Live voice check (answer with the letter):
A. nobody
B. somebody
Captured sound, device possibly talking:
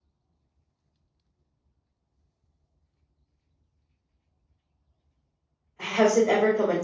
B